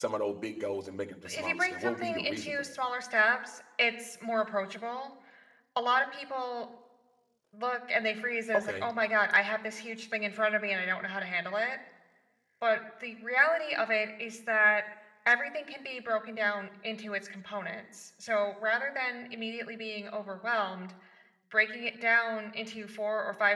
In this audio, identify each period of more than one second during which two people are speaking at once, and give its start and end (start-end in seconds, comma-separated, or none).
1.3-2.7